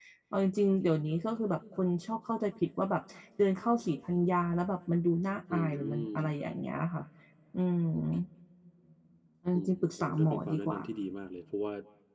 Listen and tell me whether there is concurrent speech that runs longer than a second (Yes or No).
Yes